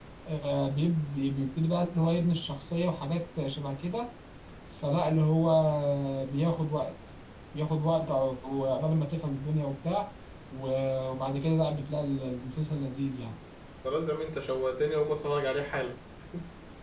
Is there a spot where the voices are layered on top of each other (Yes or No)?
No